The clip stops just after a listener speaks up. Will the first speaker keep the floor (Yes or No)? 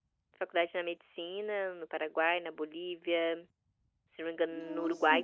Yes